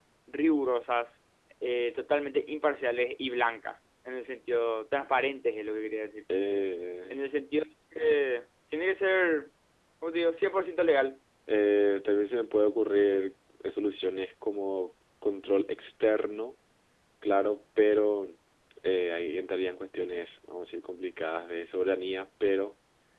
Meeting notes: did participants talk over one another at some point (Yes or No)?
No